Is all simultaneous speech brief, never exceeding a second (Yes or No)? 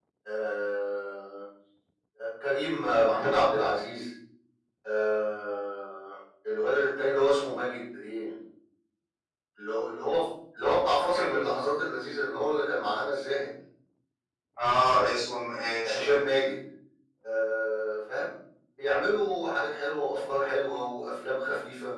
Yes